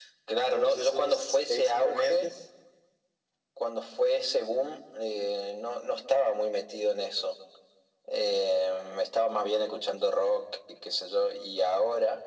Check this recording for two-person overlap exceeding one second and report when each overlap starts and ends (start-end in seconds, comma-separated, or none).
0.5-2.3